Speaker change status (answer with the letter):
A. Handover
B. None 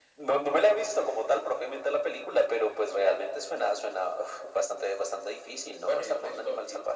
A